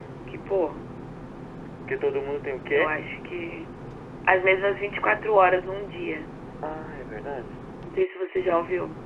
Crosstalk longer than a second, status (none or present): none